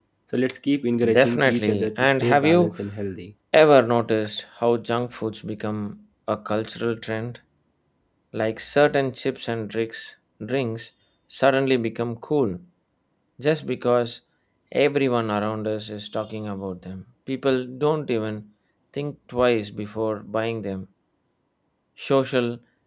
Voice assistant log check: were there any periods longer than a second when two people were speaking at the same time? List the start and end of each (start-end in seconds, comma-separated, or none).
1.1-2.7